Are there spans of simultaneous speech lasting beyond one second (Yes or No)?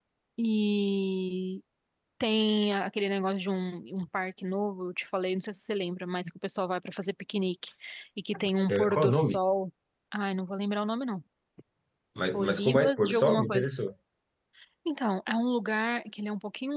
Yes